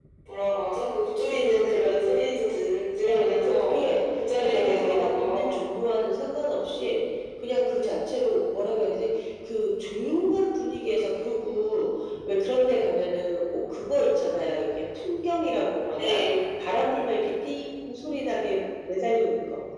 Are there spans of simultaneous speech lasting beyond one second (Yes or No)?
Yes